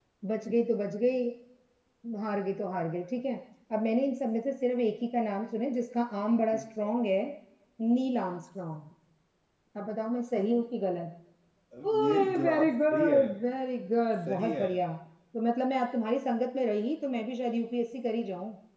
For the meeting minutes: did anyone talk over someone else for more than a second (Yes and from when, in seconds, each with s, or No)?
Yes, from 11.8 s